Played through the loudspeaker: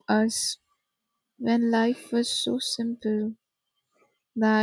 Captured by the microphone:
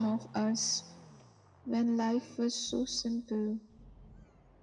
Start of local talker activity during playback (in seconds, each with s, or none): none